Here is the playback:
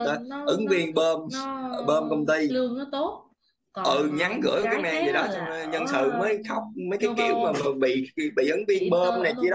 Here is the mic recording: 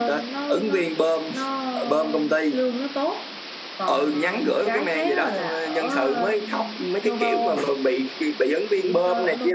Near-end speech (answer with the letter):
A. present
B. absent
B